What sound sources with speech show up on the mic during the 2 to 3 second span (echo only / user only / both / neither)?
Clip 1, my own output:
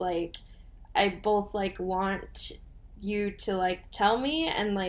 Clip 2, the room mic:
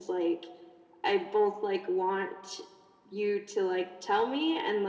echo only